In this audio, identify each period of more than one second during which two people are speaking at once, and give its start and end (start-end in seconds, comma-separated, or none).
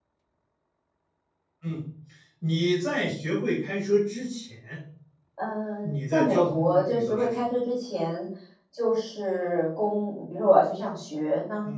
5.8-7.4